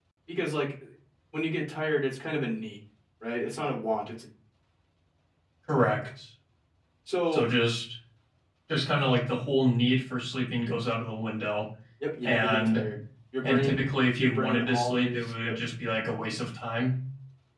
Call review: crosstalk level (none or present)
present